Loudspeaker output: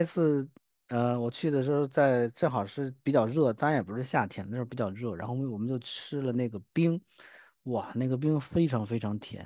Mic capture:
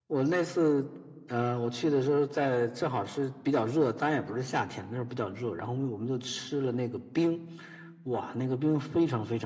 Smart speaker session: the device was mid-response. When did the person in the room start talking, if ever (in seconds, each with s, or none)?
none